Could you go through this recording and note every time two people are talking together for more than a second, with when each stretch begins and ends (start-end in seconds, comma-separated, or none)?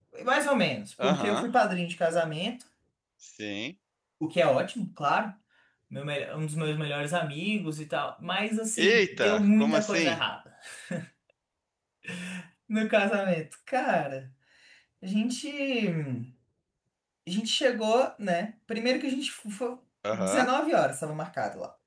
8.8-10.2